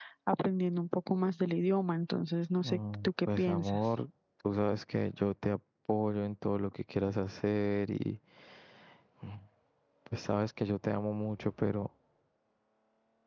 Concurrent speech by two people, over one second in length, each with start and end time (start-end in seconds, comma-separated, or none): 2.6-3.9